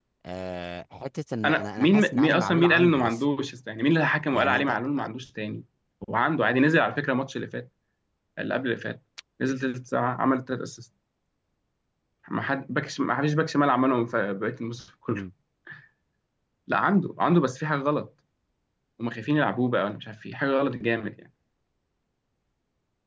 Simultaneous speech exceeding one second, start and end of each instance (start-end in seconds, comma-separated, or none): 1.4-3.2